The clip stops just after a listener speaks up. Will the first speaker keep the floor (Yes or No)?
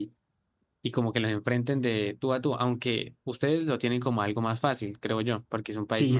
No